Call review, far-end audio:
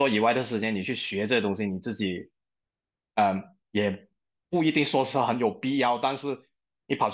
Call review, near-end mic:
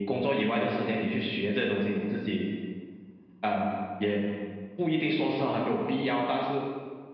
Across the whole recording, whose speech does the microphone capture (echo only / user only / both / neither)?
echo only